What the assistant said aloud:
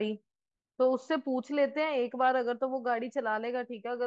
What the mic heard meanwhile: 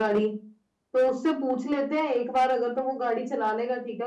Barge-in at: none

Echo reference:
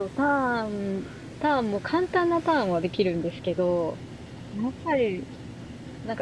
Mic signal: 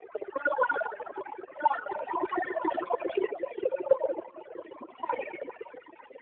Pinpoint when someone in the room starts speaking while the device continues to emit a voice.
none

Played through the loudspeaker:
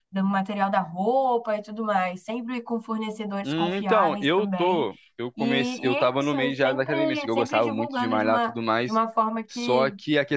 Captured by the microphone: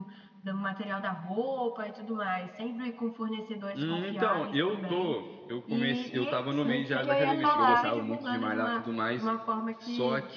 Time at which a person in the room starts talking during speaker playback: 6.6 s

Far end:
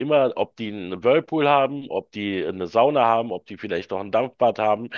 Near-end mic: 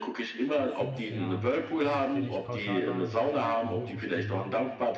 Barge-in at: 0.6 s

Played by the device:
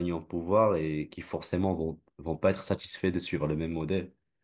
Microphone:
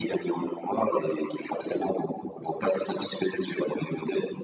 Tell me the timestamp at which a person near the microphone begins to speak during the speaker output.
none

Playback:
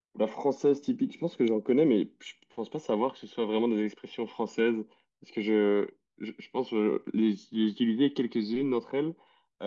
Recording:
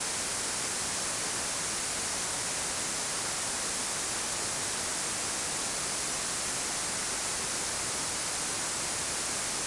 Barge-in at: none

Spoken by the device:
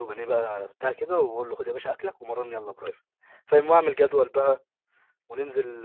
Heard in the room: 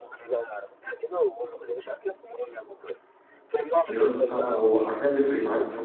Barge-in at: 3.9 s

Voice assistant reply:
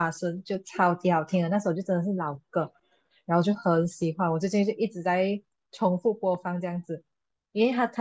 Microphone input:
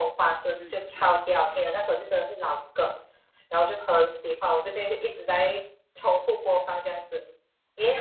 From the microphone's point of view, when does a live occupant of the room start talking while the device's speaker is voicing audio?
0.6 s

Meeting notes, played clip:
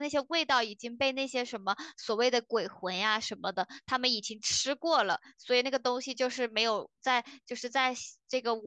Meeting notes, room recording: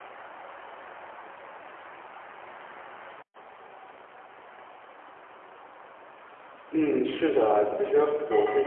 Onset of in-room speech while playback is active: 6.7 s

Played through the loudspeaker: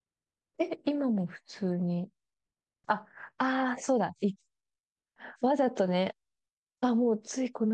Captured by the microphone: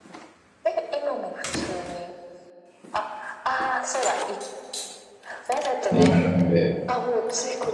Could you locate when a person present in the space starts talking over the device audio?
5.9 s

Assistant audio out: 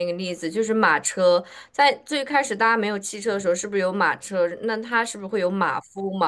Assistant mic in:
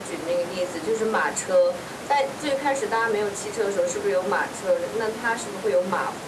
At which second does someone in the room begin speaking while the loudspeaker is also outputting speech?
none

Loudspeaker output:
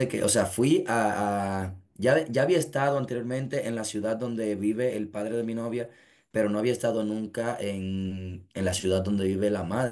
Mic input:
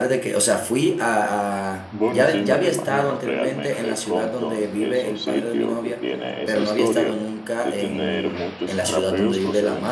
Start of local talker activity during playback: 1.9 s

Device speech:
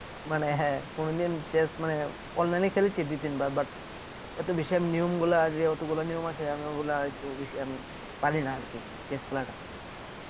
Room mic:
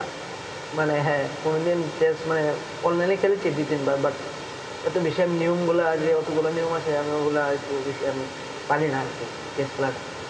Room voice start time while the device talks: none

